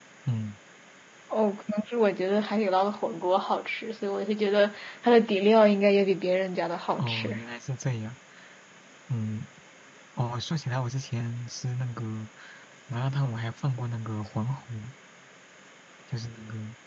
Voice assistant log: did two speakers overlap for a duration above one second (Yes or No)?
No